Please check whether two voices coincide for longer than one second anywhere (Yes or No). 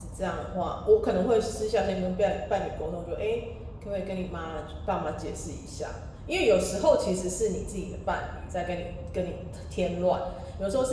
No